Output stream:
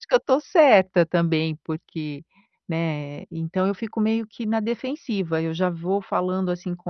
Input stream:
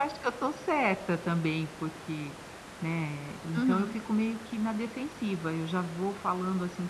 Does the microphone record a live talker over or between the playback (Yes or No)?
Yes